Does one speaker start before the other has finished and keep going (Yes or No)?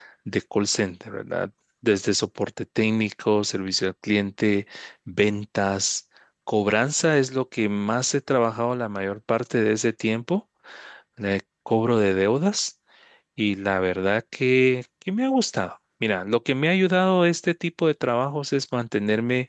No